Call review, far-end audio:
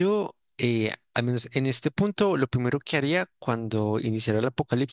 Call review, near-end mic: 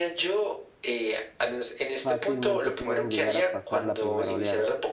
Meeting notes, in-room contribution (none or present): present